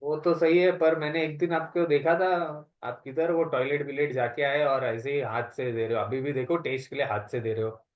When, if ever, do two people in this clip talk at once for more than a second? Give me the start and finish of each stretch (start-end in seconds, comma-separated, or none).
none